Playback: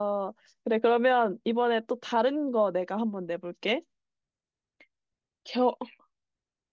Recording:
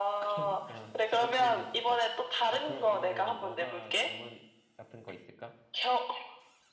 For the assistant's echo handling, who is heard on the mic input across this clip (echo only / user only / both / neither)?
both